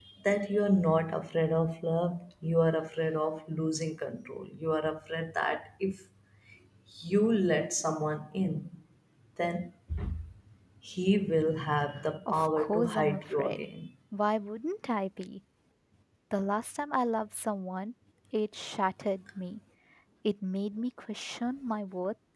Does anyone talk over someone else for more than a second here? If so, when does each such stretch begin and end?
12.3-13.7

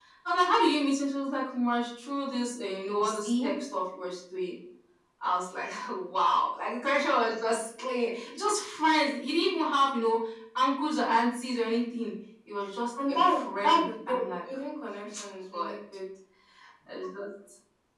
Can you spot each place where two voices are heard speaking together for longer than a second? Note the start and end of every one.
13.1-14.3

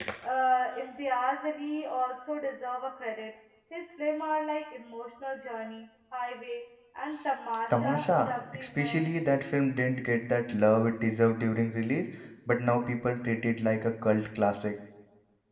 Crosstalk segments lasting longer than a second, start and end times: 7.7-9.0

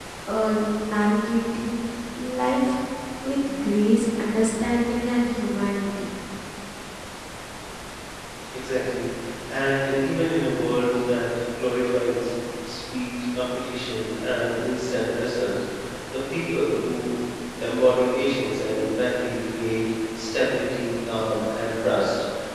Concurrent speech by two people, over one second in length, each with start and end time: none

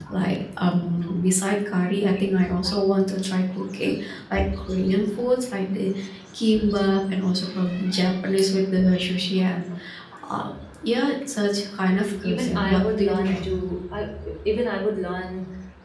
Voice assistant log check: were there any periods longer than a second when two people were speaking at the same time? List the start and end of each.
12.2-13.5

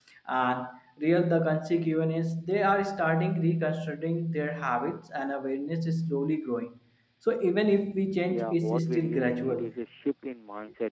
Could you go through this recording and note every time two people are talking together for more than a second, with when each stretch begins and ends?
8.3-9.7

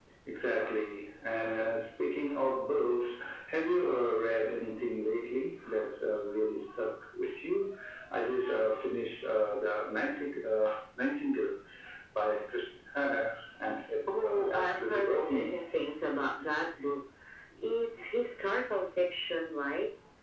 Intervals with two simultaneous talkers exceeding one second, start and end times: 14.1-15.6

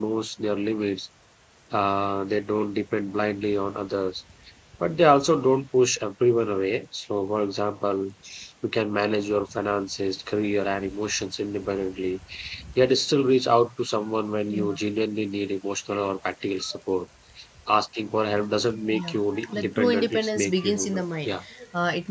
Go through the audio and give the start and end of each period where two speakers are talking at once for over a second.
18.9-21.4

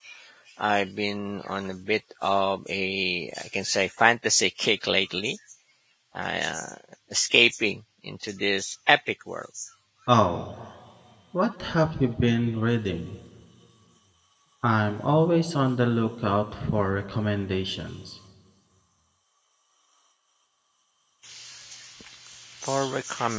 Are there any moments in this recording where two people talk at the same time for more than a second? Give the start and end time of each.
none

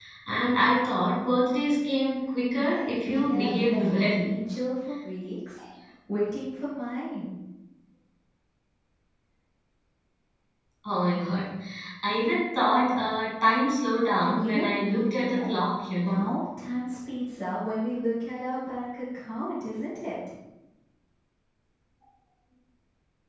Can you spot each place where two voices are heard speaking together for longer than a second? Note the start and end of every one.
2.6-4.3, 14.2-15.5

